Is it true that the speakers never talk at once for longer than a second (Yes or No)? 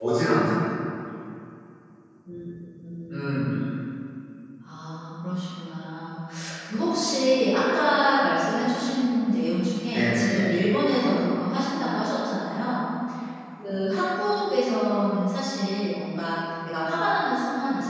Yes